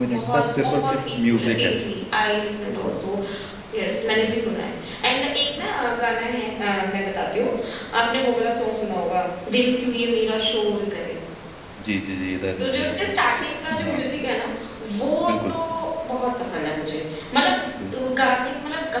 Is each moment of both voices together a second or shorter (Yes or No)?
No